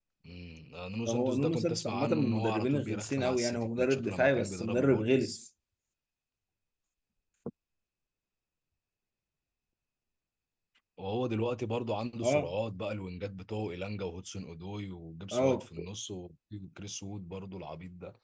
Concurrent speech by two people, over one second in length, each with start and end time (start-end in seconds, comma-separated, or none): 1.1-5.4